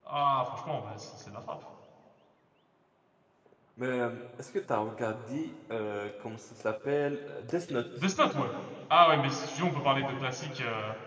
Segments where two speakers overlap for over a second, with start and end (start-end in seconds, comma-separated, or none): none